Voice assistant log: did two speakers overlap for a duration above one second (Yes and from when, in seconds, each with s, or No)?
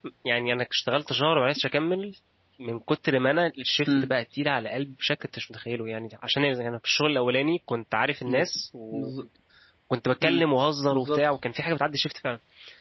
No